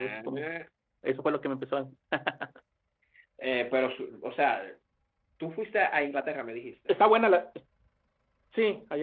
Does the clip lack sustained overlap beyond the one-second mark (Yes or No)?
Yes